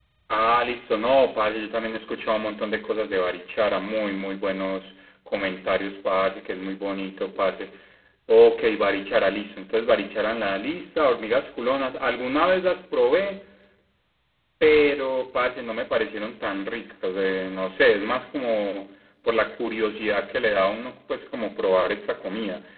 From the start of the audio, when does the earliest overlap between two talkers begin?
none

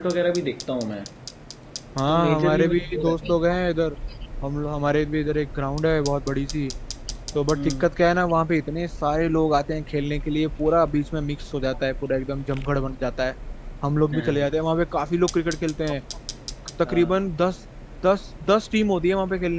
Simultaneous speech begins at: 2.1 s

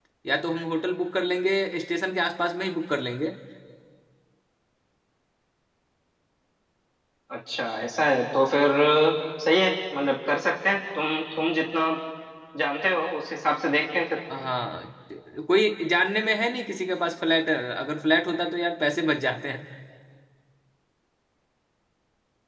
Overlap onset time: none

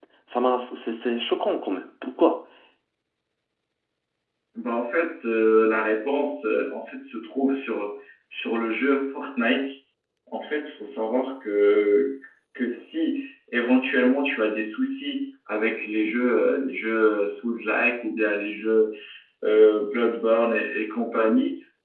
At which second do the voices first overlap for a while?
none

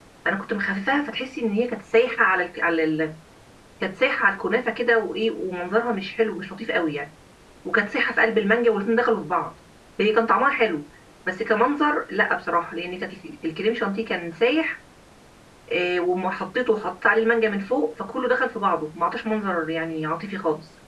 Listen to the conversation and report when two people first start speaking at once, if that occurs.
none

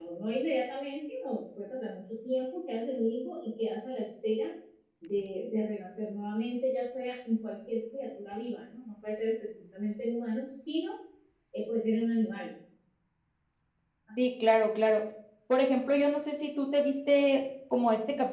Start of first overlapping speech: none

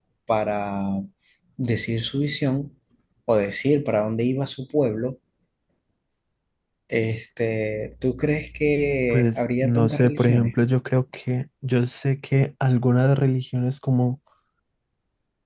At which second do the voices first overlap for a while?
9.1 s

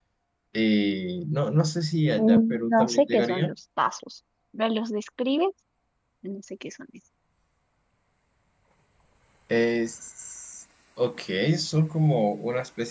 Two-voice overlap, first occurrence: 2.2 s

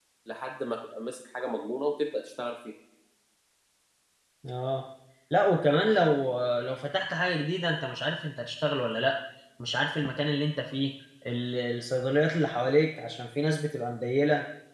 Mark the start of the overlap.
none

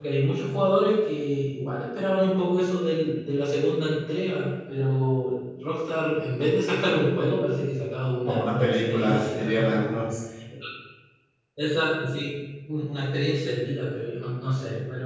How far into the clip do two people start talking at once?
8.2 s

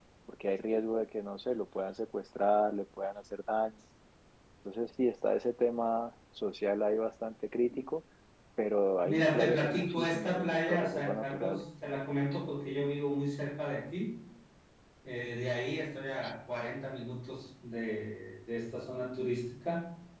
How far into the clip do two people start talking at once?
9.0 s

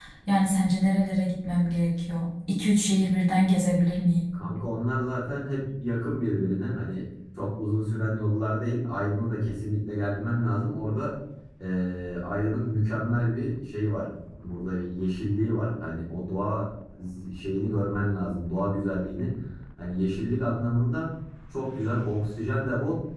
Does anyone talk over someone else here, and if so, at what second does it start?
none

